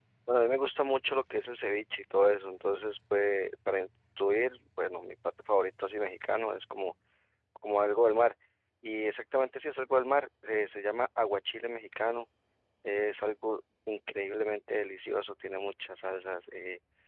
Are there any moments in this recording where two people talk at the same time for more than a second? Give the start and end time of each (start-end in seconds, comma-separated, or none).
none